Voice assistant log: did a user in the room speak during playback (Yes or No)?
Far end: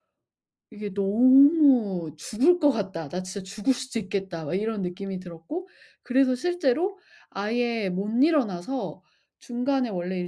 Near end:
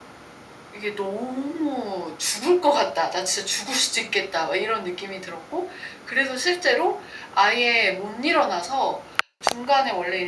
No